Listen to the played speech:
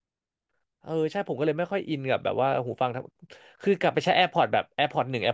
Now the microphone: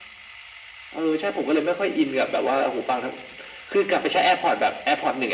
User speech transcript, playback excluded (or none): none